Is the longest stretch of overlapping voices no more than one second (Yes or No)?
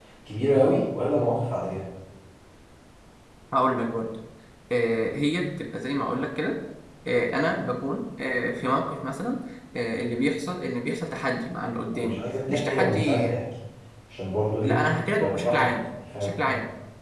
No